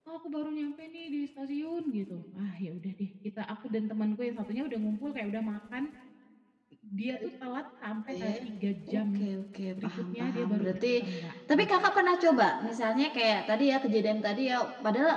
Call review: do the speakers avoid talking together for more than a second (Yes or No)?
No